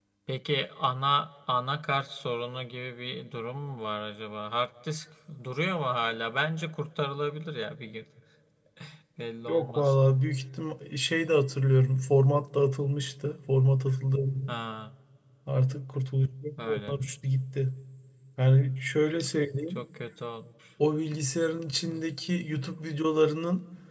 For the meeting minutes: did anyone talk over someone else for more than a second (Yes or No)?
No